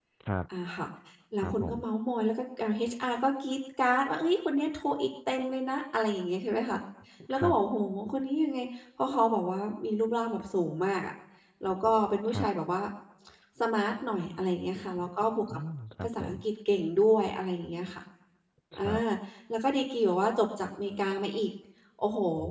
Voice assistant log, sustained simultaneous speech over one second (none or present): none